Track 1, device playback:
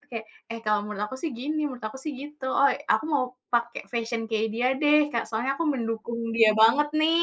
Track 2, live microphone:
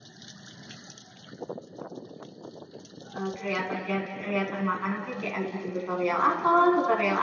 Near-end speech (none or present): present